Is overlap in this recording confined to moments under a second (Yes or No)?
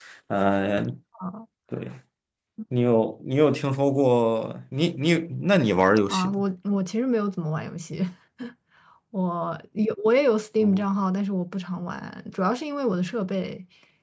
Yes